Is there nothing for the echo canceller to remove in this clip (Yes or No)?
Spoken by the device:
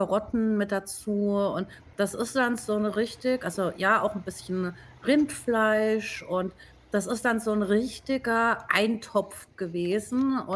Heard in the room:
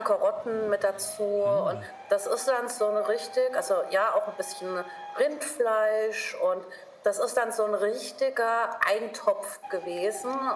No